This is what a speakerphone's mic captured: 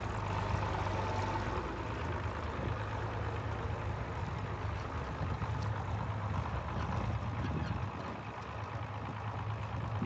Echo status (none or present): none